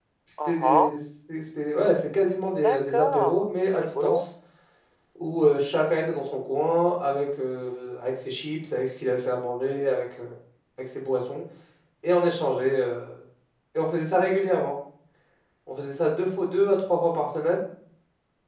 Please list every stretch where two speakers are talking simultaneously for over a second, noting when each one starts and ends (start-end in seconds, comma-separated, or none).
2.5-4.2